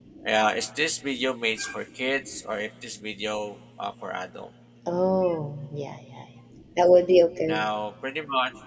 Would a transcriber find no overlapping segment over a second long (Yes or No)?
Yes